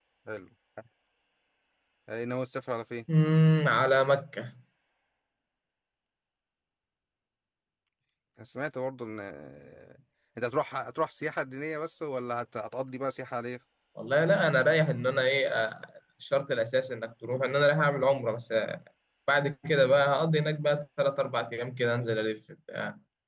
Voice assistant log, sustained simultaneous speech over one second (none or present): none